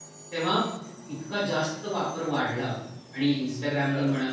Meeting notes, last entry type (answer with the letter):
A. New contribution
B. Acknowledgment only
B